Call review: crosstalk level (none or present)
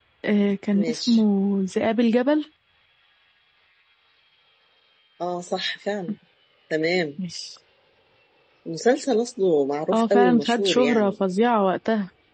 present